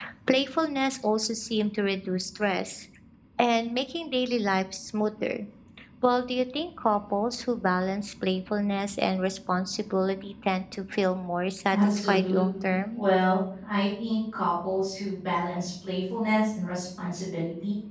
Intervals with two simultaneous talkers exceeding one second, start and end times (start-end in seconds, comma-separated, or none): 11.7-13.0